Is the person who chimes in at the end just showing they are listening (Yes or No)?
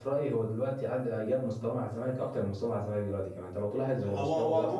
No